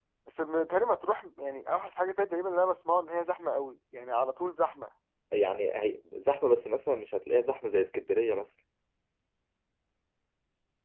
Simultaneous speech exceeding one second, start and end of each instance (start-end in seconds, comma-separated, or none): none